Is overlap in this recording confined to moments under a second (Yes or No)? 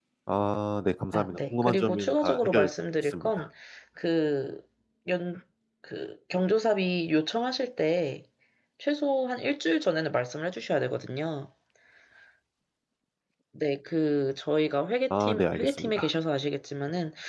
No